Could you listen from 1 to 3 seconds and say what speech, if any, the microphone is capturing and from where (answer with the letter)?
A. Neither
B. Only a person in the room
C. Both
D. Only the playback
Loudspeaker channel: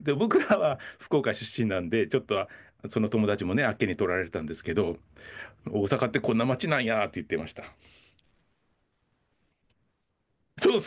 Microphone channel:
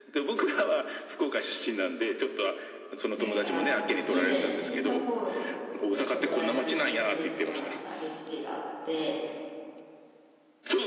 D